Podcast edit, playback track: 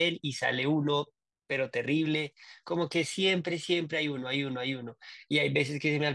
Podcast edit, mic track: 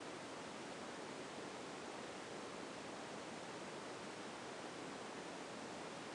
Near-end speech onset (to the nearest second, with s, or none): none